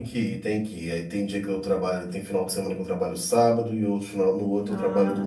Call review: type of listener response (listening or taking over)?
taking over